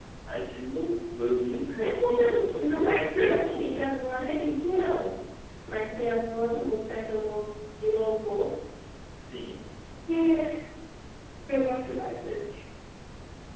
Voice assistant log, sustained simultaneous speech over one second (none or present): present